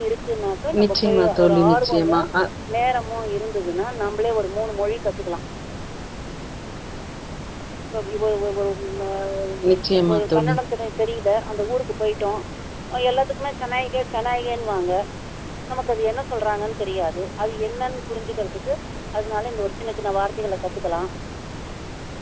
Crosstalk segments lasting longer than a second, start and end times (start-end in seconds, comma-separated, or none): 0.8-2.2